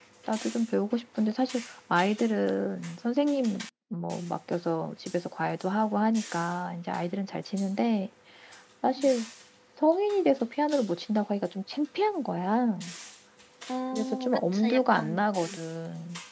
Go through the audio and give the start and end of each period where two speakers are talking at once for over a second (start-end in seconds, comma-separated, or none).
13.9-15.2